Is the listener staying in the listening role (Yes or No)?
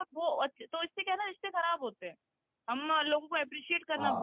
Yes